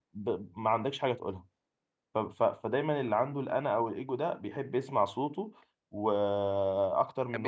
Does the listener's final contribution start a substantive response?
No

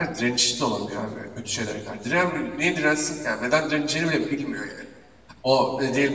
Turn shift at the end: No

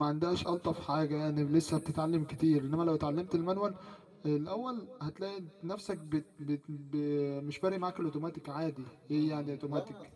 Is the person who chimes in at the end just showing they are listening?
No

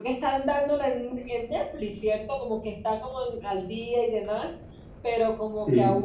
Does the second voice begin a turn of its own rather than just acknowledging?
No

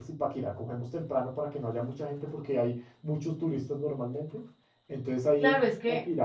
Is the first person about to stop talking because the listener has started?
Yes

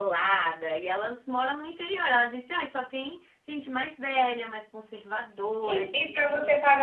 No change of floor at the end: No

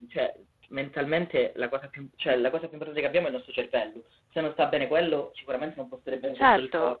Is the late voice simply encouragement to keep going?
No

